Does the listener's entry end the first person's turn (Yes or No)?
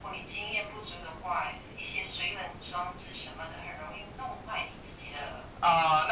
Yes